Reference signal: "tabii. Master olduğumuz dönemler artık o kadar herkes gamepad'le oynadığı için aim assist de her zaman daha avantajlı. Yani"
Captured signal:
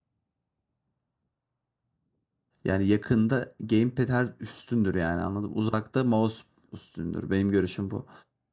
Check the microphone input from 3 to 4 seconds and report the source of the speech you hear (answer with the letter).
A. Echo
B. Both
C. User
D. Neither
C